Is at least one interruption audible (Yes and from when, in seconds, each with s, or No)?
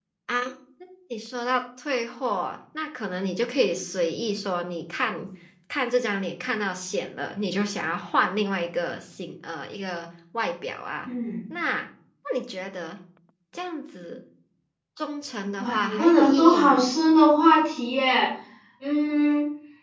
Yes, from 15.6 s